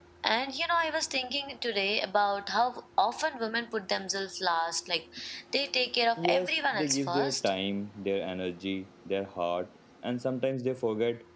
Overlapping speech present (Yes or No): Yes